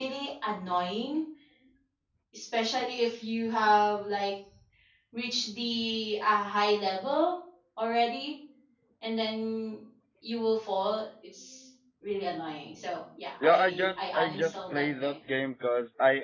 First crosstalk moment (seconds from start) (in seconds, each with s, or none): 13.4 s